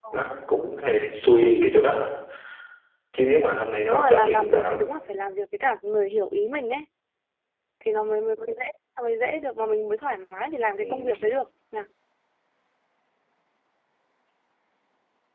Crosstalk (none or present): present